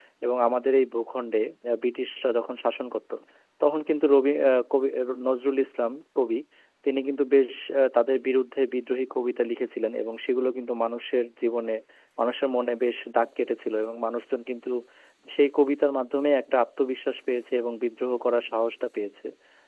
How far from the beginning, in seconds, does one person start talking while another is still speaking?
none

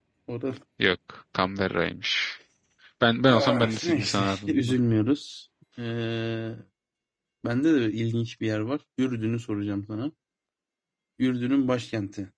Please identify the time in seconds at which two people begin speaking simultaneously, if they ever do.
3.3 s

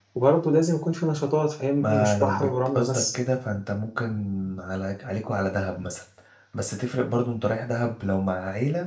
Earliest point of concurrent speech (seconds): 1.8 s

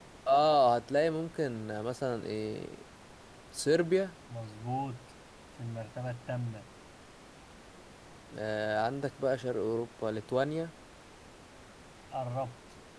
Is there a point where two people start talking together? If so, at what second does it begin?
none

